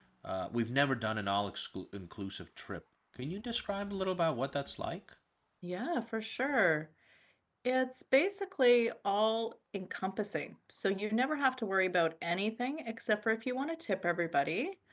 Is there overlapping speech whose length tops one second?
No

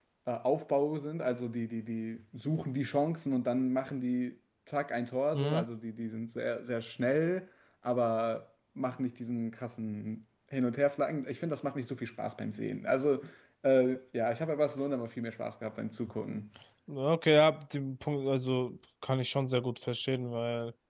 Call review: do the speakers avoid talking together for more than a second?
Yes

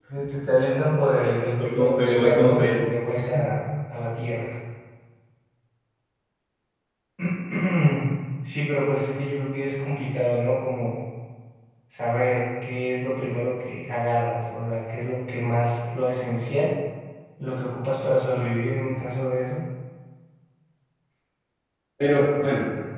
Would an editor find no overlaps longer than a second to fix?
No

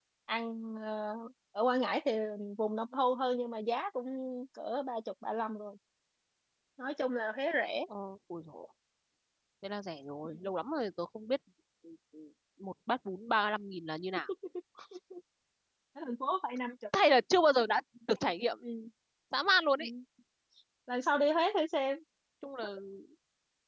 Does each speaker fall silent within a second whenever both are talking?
Yes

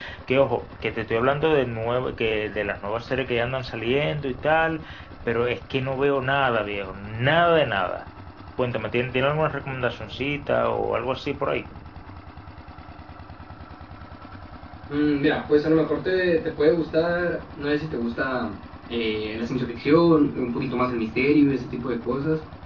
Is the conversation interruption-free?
Yes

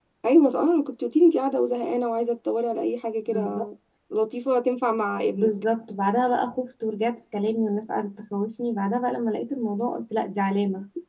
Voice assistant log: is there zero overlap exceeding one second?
Yes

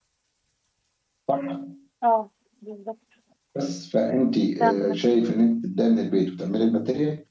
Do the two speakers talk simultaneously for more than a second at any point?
No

